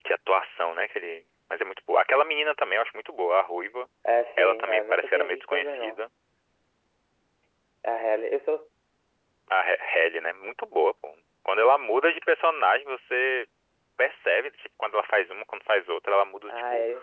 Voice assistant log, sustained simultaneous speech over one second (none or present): present